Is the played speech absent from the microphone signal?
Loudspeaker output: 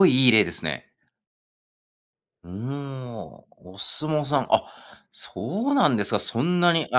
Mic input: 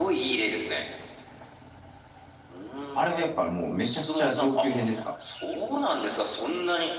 No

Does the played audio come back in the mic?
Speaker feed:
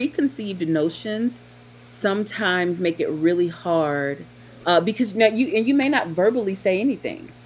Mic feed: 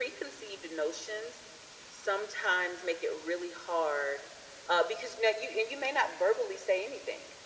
Yes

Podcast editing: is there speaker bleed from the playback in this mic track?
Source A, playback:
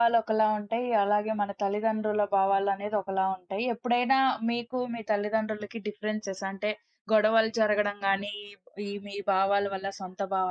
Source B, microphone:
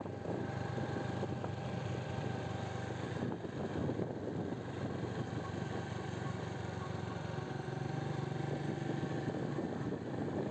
No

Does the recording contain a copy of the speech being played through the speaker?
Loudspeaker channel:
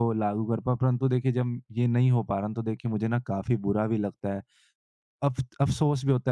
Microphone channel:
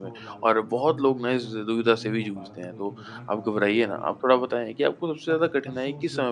Yes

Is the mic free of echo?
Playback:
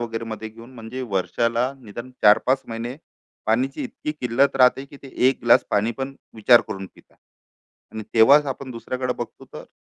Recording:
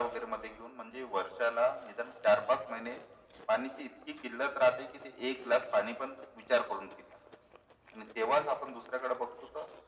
No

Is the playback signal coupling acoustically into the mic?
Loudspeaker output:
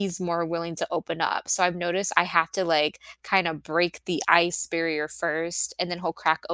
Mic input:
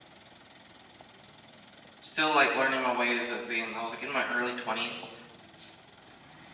No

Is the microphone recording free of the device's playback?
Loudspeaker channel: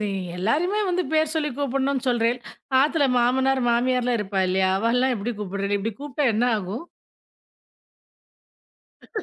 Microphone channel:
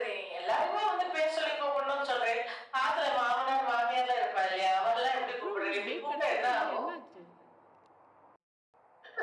No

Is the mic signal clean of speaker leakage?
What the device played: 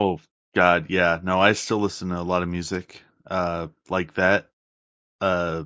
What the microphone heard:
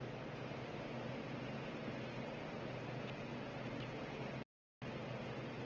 Yes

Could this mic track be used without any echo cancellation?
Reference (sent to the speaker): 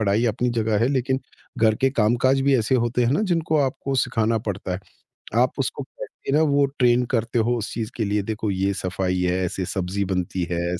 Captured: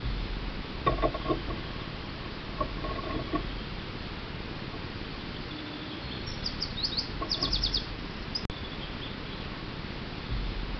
Yes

